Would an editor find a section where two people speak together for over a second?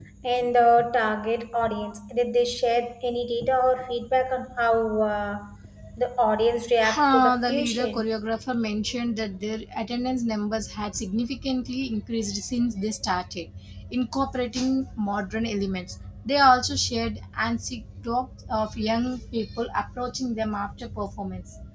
Yes, from 6.8 s

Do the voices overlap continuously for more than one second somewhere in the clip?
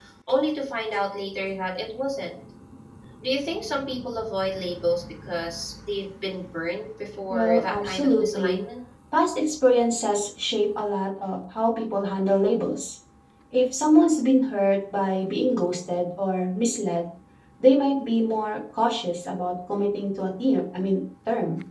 Yes, from 7.3 s

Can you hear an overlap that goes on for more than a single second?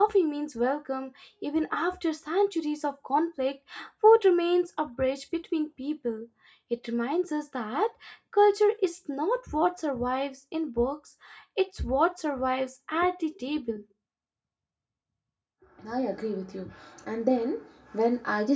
No

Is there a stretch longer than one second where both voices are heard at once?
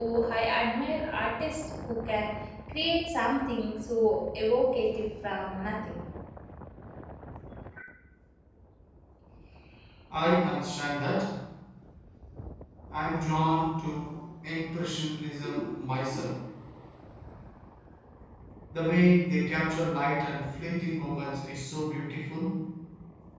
No

